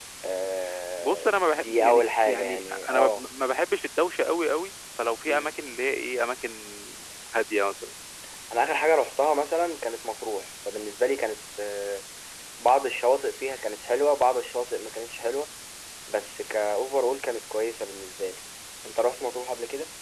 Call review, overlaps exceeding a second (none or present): present